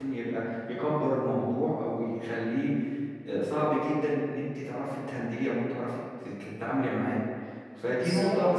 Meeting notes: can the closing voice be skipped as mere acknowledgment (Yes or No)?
Yes